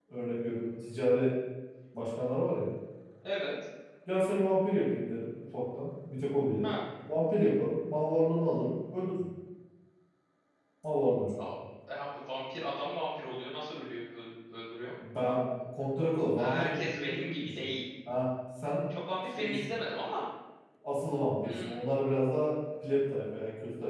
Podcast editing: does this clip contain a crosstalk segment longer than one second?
Yes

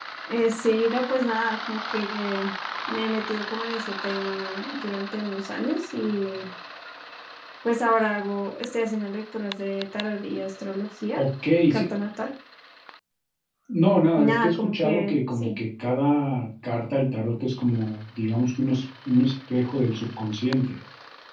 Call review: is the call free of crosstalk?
No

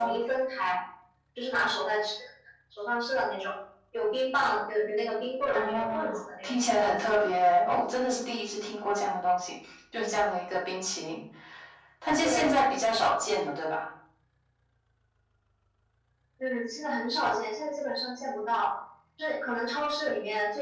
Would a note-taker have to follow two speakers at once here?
Yes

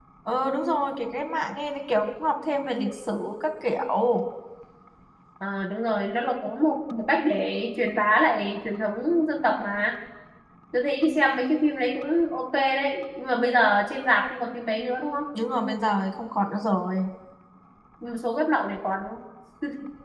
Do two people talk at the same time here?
No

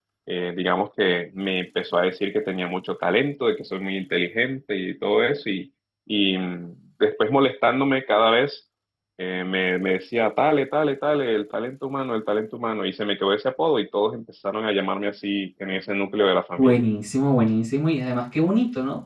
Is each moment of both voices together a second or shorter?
Yes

